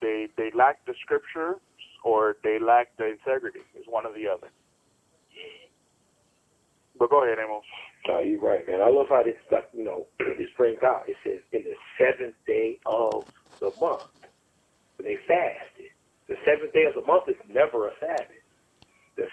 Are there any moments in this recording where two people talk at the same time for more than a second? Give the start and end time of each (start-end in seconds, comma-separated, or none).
none